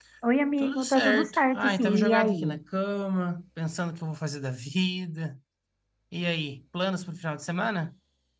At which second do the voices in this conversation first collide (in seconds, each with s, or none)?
0.6 s